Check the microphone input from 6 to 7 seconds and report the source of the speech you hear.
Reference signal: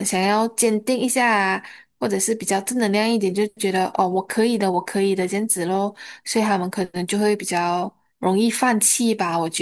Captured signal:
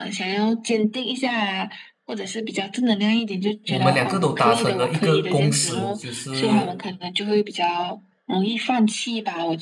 both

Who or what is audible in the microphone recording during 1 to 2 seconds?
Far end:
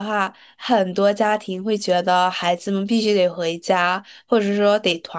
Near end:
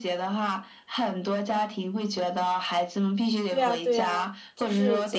echo only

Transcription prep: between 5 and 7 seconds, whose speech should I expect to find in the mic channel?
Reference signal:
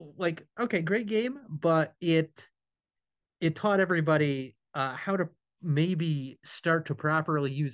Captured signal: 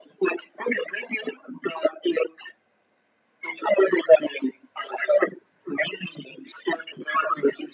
echo only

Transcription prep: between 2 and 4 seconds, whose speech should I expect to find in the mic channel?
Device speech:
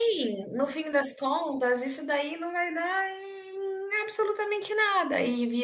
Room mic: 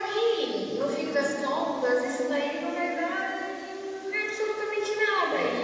echo only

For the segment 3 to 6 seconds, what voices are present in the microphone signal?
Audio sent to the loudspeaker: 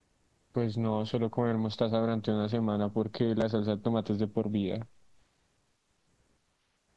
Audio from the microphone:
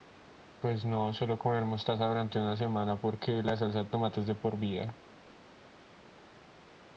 echo only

